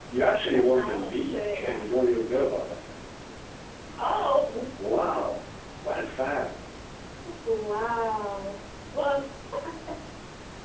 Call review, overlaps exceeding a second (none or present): present